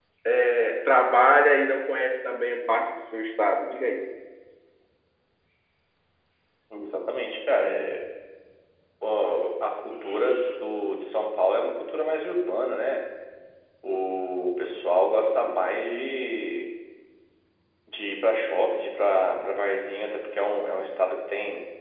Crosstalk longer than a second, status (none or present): none